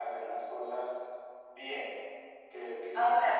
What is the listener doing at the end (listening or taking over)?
taking over